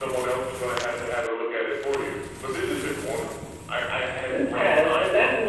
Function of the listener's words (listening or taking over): taking over